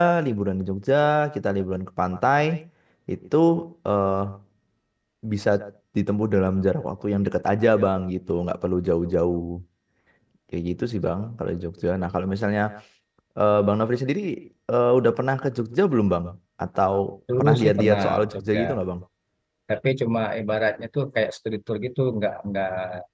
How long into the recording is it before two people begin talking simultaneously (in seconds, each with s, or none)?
17.4 s